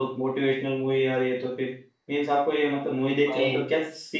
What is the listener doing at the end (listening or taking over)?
listening